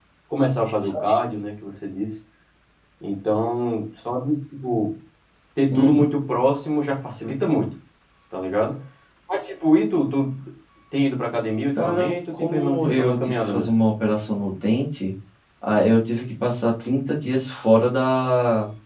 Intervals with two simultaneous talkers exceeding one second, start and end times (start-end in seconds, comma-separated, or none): 11.8-13.7